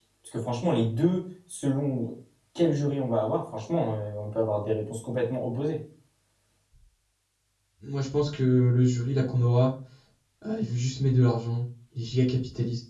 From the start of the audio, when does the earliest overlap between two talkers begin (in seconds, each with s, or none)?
none